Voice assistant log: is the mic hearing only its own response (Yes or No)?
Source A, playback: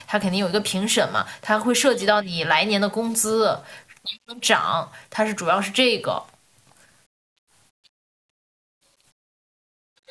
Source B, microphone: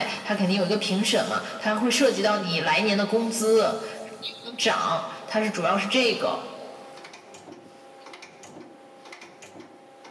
Yes